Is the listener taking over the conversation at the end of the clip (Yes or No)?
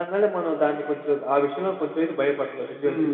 Yes